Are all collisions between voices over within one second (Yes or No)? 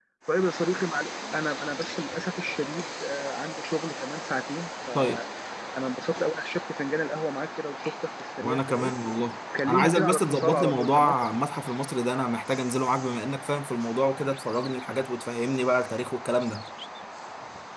No